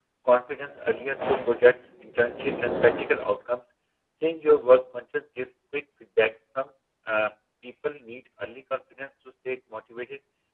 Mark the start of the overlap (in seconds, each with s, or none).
none